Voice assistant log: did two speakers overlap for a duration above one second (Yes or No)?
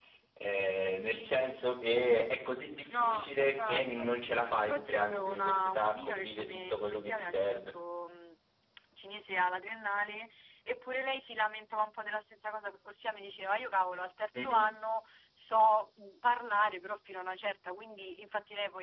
Yes